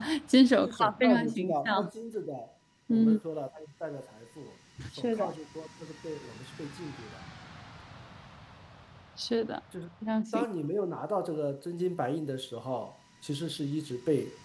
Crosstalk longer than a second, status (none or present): present